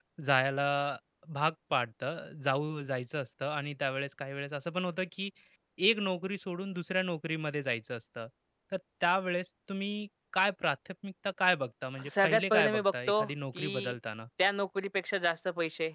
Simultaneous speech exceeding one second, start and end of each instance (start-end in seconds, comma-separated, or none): 12.2-13.9